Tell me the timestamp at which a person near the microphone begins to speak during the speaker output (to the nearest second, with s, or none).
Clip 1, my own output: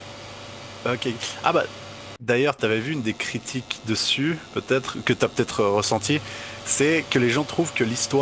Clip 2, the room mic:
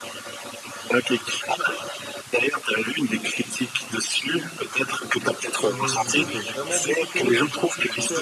6 s